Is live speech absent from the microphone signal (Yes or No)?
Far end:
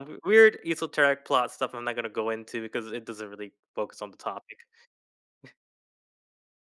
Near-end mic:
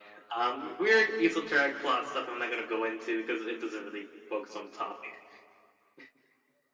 Yes